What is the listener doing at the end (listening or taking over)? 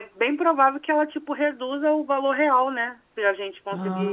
listening